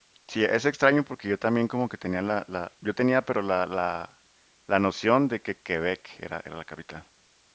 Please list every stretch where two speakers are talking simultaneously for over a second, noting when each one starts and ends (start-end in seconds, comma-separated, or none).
none